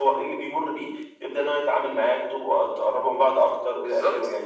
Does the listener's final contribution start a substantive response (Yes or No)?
Yes